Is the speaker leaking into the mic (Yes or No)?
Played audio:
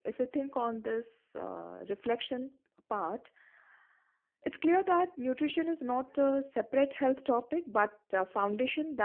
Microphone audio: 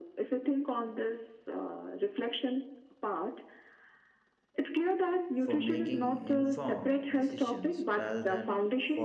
Yes